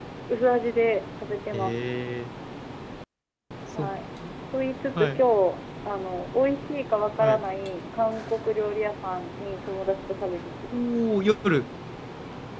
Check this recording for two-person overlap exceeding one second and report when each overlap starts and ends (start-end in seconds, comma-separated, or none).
none